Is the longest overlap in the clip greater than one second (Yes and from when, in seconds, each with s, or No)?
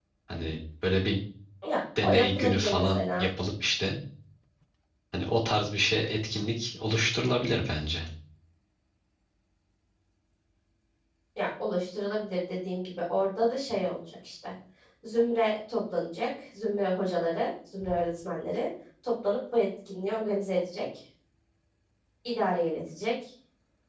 Yes, from 2.0 s